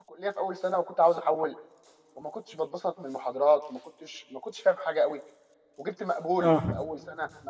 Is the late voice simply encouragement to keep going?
Yes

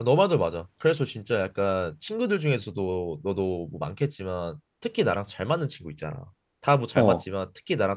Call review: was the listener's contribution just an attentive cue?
Yes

